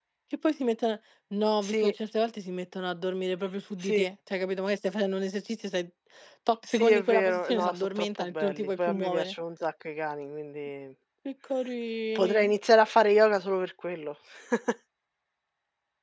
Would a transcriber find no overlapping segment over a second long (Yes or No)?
No